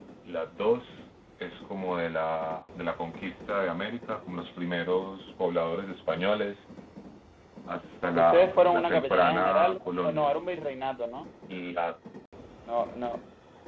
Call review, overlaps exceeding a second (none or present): present